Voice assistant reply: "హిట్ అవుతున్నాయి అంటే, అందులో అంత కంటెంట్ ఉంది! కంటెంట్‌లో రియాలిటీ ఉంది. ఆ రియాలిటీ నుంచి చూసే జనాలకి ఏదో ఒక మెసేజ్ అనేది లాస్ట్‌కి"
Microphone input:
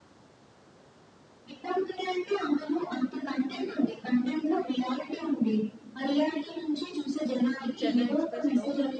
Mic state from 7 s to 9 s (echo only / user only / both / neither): both